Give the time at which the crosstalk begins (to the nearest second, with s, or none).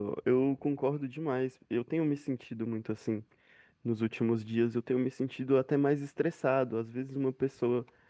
none